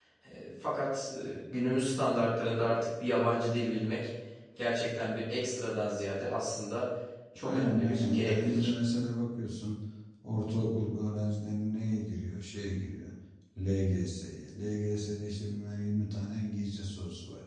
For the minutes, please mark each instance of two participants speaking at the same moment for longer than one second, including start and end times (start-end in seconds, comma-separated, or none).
7.4-8.7